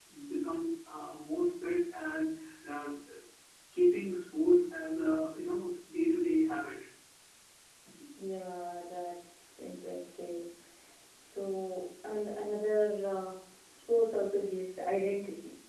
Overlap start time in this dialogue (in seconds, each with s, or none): none